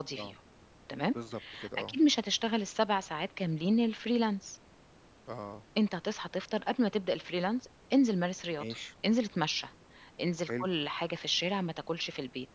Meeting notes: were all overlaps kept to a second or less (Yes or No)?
Yes